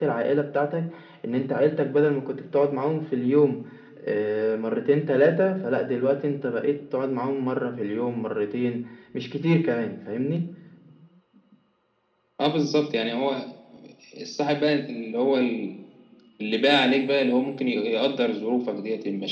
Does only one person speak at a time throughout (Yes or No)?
Yes